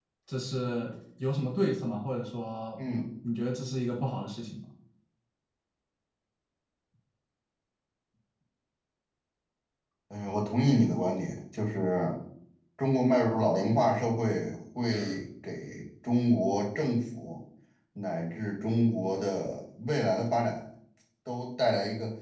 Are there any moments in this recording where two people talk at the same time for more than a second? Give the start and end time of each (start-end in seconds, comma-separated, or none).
none